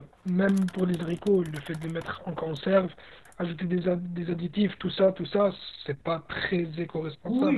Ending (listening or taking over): taking over